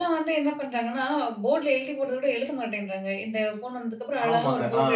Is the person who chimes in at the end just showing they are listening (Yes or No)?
No